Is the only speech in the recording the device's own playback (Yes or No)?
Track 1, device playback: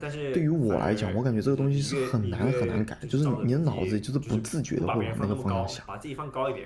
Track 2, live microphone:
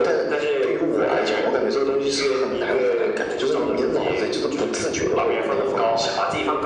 Yes